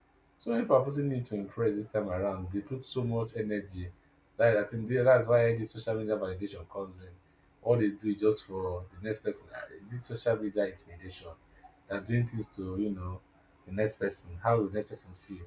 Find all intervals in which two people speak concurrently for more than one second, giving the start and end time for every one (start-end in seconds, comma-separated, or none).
none